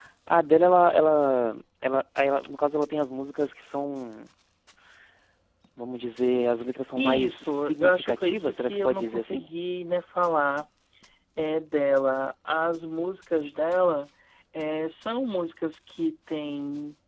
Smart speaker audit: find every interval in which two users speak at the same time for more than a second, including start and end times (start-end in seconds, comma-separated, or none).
7.0-9.4